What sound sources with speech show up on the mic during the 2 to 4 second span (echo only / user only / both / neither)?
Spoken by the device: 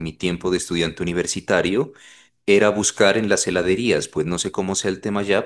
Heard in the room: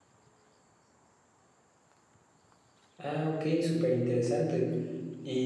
user only